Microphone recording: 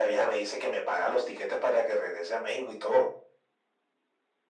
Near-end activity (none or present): none